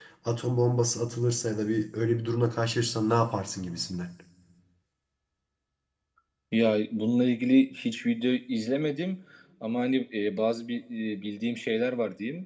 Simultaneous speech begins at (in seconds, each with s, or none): none